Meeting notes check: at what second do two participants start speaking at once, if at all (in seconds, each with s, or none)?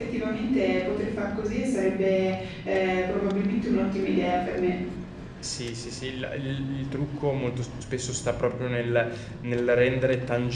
none